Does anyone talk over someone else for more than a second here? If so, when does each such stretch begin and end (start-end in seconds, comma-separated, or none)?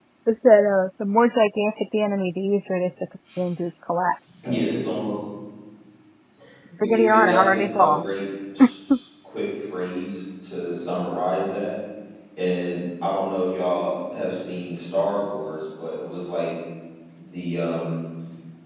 6.8-8.0